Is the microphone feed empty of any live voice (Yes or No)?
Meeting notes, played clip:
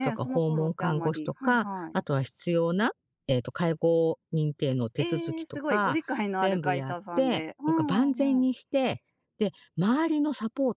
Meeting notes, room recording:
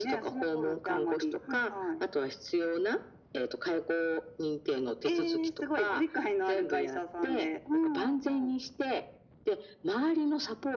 Yes